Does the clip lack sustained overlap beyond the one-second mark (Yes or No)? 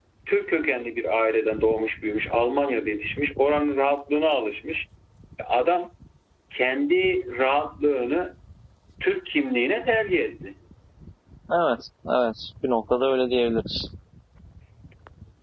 Yes